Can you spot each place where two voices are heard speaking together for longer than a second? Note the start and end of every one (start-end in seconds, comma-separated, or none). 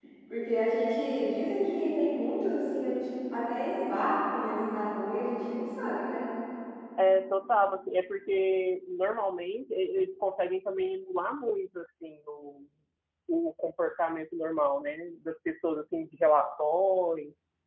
none